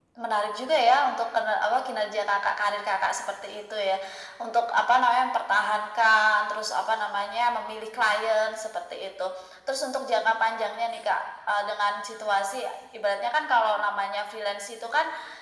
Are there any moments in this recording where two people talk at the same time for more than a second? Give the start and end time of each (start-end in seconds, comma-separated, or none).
none